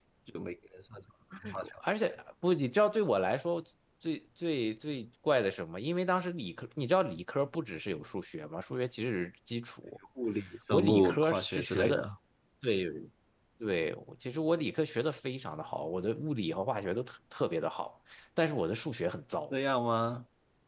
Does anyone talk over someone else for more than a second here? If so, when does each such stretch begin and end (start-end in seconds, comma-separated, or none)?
10.7-12.0